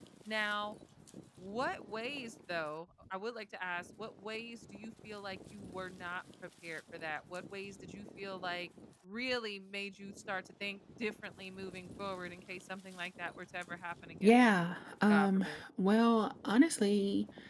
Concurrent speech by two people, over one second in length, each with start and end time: none

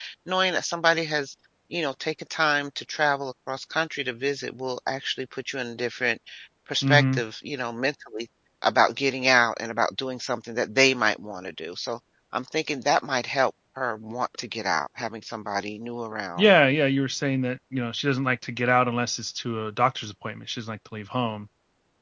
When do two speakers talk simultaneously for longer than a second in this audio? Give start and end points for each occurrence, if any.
none

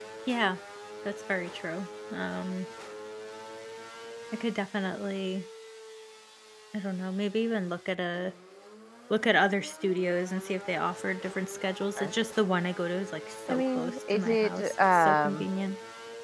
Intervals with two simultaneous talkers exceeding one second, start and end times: 13.5-15.4

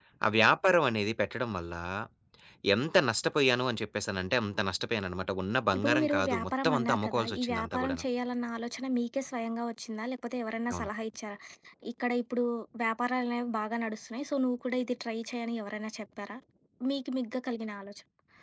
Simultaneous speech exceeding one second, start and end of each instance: 5.8-8.0

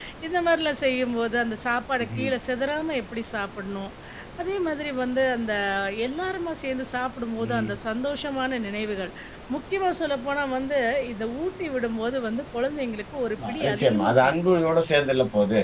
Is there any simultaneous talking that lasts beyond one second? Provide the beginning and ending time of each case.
13.5-14.7

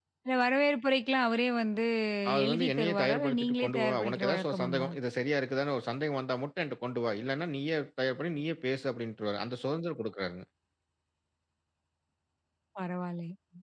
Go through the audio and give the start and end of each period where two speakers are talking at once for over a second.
2.4-4.9

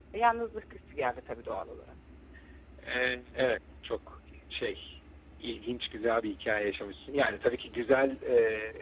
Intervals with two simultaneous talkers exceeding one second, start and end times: none

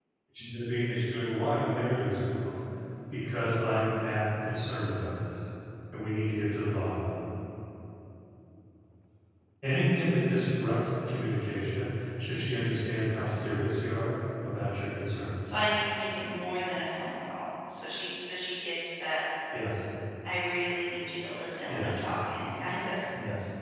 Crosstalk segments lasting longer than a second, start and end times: none

